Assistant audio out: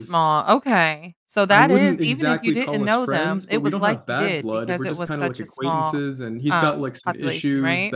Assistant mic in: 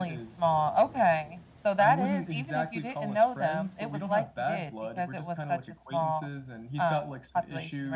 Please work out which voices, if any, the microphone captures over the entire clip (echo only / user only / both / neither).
echo only